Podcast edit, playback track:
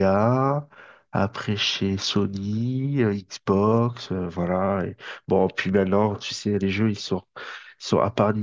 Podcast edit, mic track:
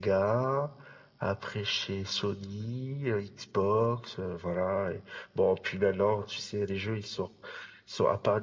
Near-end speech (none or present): none